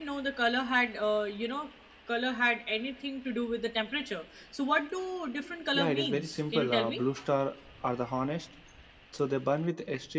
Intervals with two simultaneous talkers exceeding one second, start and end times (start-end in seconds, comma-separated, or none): 5.7-7.0